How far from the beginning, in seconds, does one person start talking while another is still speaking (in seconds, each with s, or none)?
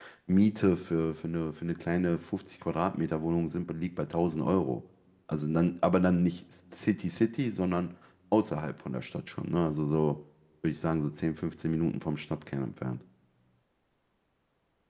none